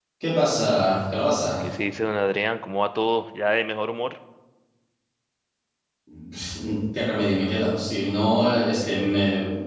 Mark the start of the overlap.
none

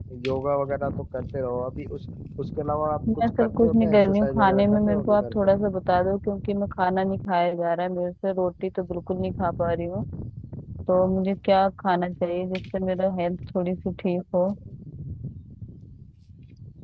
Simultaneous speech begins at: 3.1 s

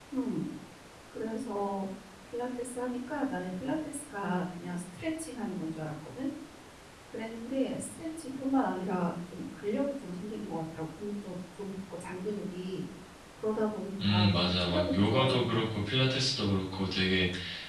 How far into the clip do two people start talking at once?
14.1 s

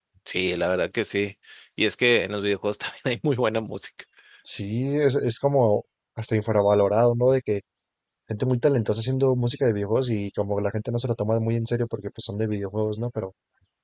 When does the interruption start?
none

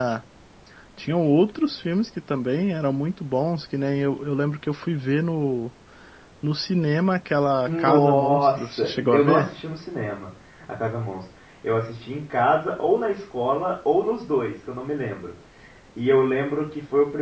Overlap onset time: 7.7 s

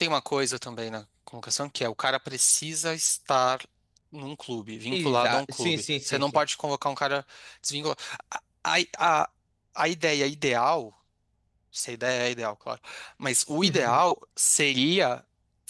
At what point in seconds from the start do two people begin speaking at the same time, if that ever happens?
4.9 s

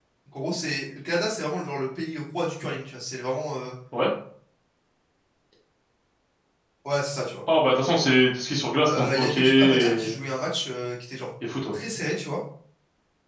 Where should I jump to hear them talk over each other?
8.9 s

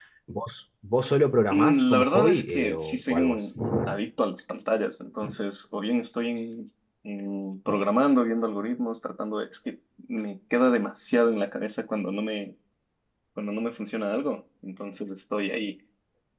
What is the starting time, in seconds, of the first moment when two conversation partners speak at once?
1.5 s

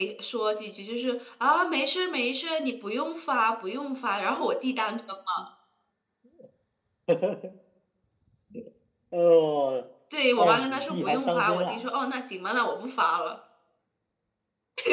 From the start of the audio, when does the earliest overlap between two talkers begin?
10.4 s

